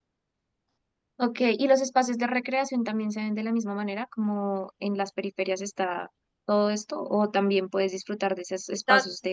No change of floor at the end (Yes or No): Yes